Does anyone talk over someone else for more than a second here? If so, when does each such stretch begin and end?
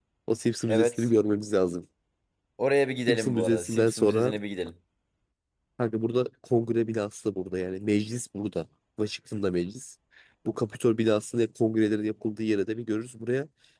3.1-4.3

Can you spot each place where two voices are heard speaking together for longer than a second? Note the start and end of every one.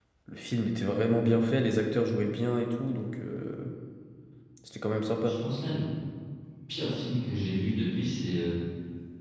none

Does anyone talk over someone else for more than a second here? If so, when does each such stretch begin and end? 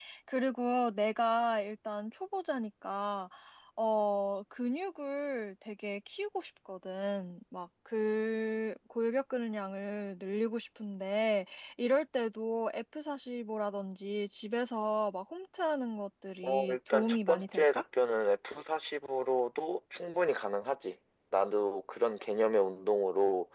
16.4-17.8

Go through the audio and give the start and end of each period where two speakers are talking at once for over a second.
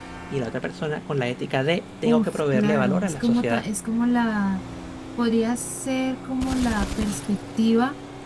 2.0-3.6

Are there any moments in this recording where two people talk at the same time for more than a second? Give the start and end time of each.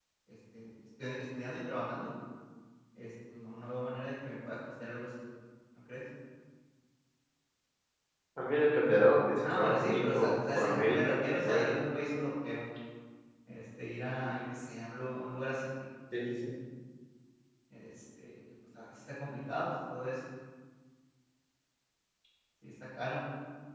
9.4-11.6

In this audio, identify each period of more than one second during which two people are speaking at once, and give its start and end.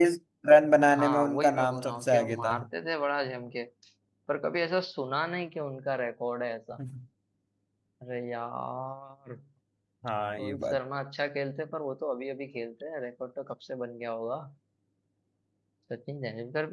0.9-2.5

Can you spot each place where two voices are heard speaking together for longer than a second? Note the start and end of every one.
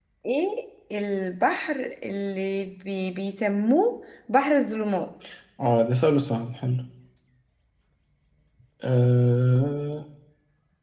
none

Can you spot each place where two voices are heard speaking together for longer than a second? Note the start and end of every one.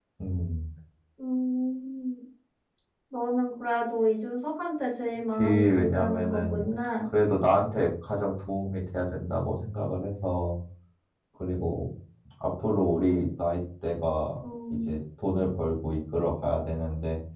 5.4-6.6

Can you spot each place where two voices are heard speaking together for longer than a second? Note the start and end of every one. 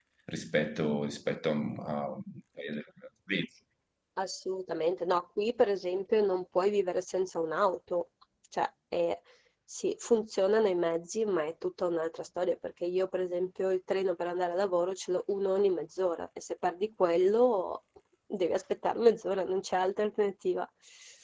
none

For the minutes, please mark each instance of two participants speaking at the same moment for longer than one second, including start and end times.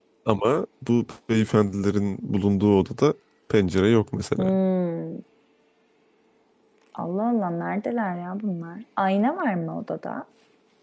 none

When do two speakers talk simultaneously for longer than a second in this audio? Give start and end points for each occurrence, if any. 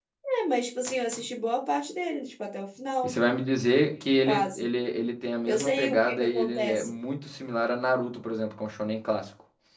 5.5-6.9

